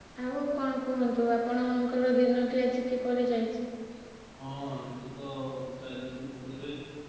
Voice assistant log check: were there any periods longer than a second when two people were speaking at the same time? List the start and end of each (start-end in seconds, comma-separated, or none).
none